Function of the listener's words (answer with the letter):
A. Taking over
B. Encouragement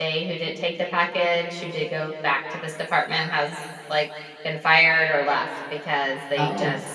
B